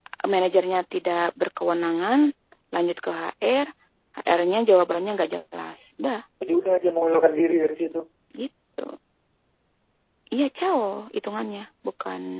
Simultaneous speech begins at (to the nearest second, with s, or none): none